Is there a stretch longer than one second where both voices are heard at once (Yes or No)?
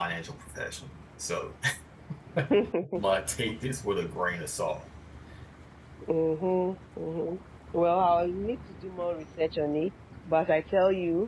No